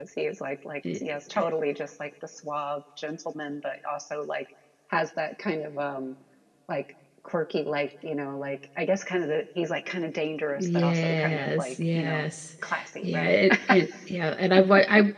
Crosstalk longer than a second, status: present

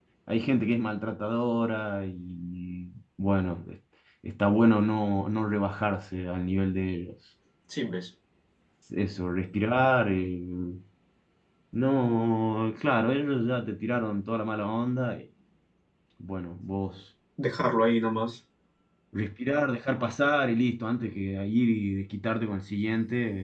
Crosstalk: none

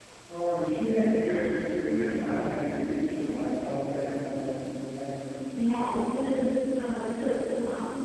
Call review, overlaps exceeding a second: none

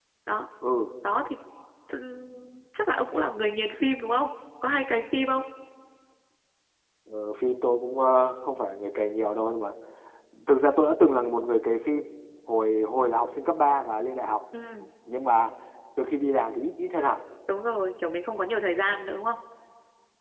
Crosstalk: none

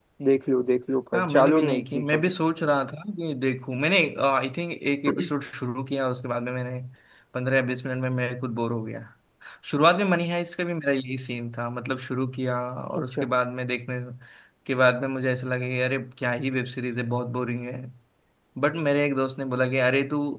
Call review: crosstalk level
present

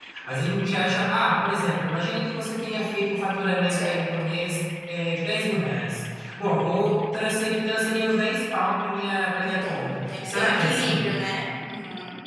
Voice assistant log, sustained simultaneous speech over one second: present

